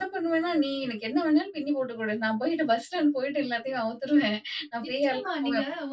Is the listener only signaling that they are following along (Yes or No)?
No